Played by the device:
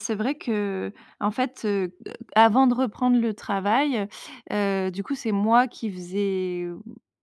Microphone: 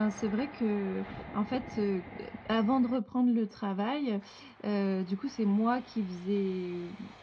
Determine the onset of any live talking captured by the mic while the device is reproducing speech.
none

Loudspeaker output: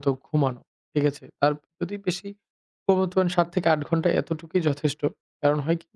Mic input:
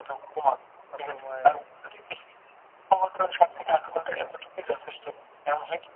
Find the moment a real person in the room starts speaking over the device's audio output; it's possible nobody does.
0.9 s

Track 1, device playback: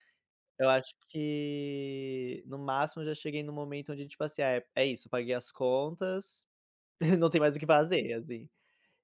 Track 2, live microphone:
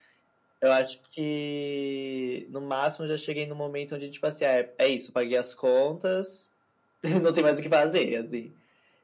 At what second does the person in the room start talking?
none

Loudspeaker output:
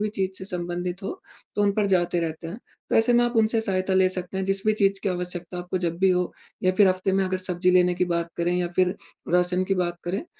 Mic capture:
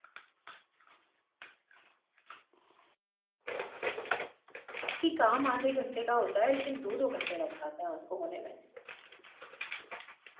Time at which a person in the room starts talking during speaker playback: 5.0 s

